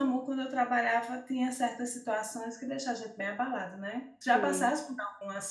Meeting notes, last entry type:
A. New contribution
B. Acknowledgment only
B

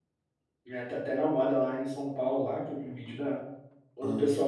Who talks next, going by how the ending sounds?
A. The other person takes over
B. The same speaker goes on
B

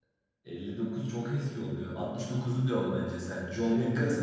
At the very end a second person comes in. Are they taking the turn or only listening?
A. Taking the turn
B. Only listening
A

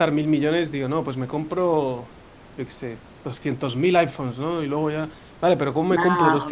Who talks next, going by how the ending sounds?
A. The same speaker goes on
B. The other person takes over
A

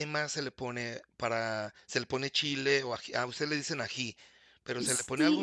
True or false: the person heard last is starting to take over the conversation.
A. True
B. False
A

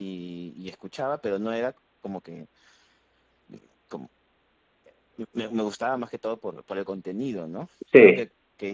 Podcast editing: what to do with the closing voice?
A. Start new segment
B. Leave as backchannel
B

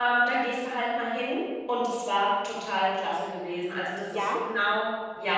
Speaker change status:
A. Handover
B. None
B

